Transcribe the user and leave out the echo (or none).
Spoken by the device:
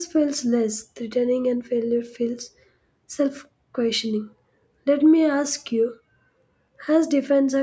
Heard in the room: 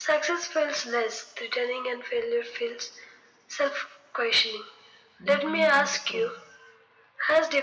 defend, or prove.